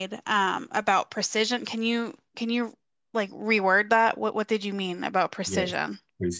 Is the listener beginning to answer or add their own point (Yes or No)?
Yes